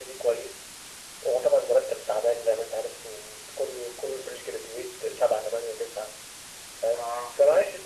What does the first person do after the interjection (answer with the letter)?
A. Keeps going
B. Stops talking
A